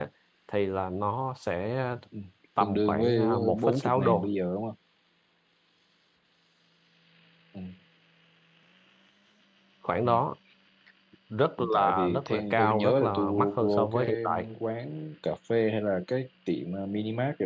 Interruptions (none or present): present